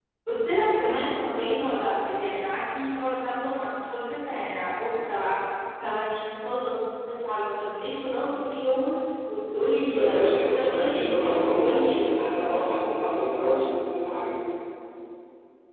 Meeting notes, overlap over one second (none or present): present